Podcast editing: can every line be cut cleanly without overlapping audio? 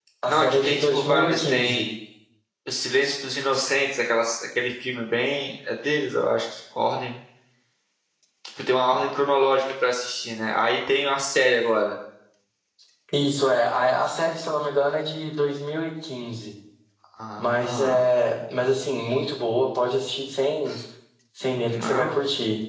No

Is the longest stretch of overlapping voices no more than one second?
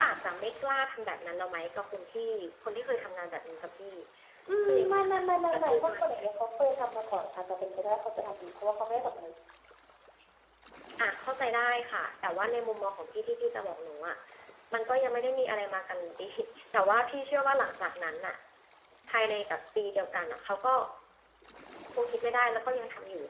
No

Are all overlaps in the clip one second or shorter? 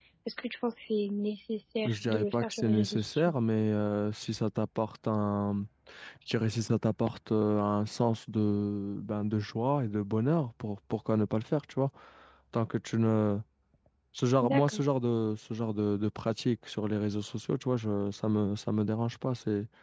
No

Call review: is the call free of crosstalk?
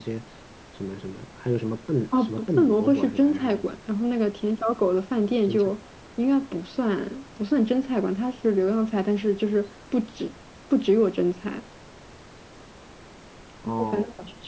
No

